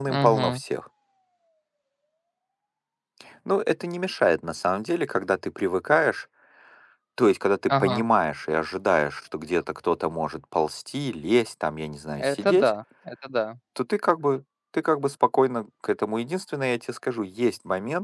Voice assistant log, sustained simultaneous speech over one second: none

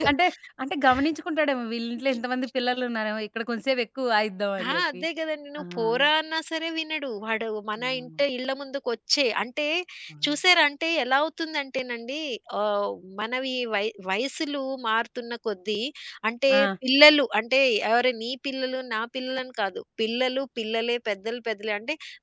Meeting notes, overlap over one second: none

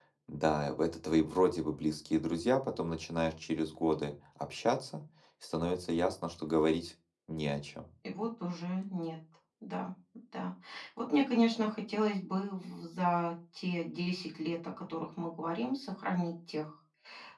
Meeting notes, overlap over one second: none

